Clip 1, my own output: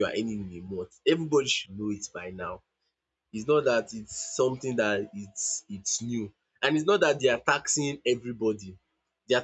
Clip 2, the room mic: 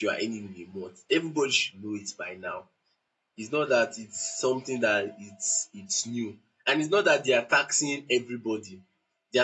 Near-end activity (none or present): none